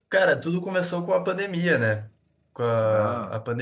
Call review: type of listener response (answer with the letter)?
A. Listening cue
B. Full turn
A